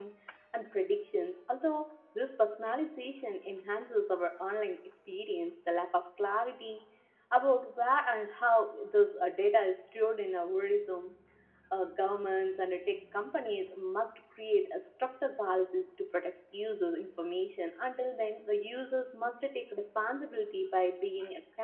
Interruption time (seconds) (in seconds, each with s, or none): none